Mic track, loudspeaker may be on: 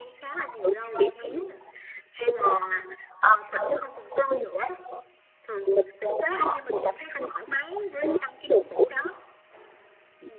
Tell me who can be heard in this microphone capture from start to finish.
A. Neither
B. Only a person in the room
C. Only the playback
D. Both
C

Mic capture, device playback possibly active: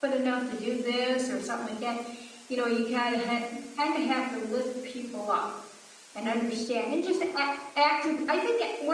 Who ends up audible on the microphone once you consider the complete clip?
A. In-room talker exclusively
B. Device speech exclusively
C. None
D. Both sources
A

